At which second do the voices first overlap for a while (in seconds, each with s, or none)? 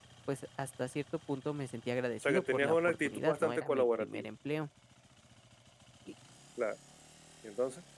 2.2 s